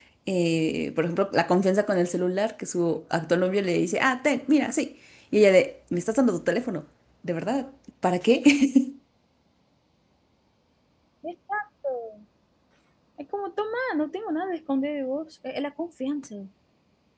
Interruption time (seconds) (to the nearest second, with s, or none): none